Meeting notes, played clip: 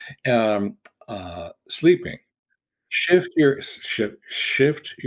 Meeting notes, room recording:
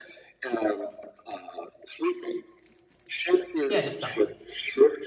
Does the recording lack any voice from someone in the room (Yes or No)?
No